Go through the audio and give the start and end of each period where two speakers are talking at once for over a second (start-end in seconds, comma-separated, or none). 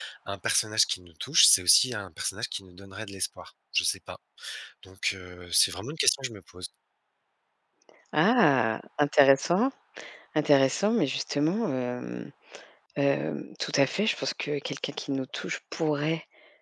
none